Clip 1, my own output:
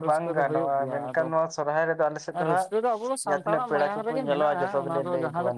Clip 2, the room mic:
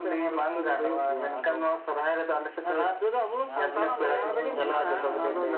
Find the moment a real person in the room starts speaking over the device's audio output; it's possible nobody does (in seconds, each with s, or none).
3.5 s